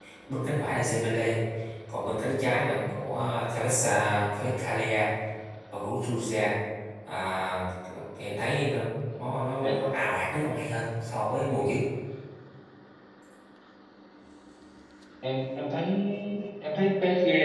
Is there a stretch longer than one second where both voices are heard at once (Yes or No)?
No